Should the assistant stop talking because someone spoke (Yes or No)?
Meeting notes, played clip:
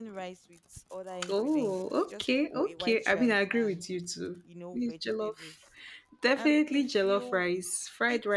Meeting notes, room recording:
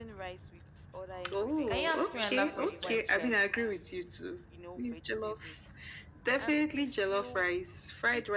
Yes